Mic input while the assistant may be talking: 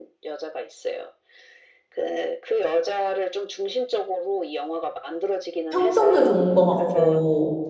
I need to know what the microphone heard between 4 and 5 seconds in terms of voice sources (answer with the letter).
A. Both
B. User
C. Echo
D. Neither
C